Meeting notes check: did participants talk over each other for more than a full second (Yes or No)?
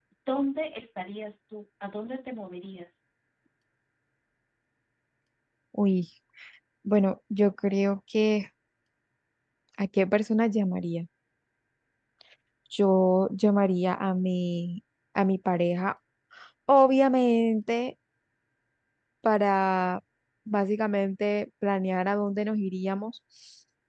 No